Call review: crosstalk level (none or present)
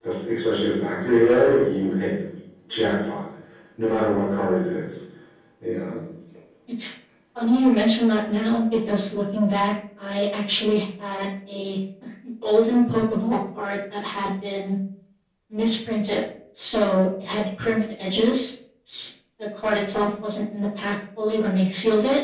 none